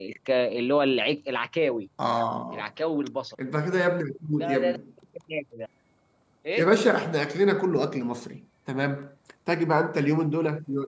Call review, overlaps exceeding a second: none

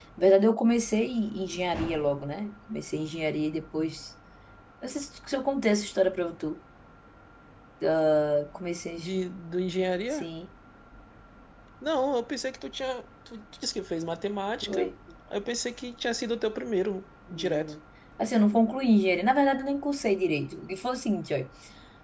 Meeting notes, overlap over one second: none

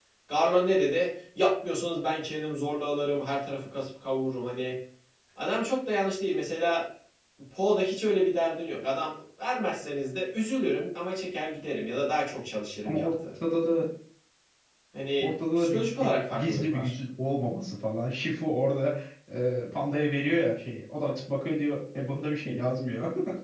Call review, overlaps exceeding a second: present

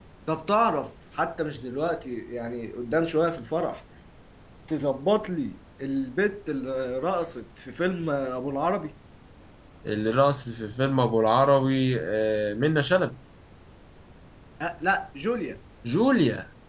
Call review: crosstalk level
none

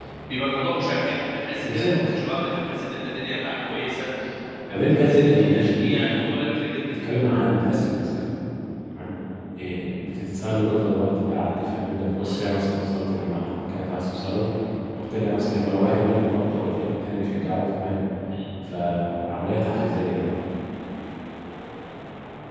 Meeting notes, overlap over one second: present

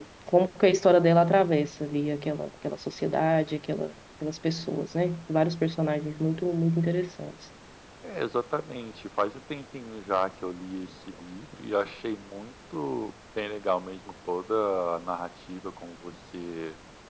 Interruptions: none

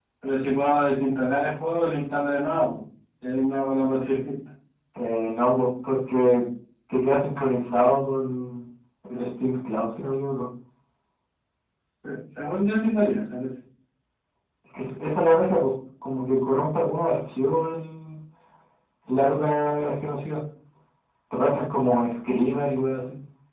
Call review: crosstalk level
none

